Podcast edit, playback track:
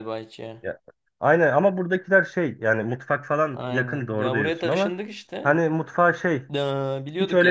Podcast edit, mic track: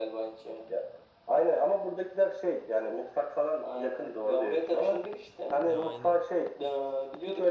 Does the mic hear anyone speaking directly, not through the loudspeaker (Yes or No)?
Yes